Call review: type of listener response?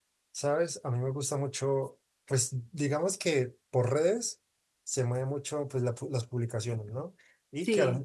listening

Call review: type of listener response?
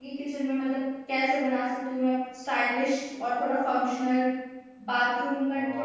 listening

